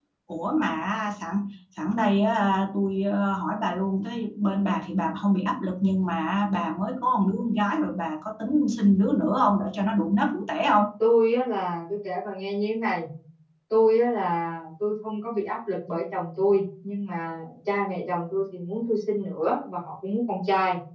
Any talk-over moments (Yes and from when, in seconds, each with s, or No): No